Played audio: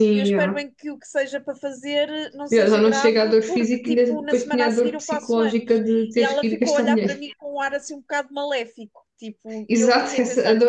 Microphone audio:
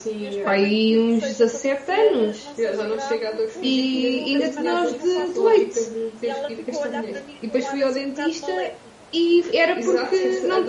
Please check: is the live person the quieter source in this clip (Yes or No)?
No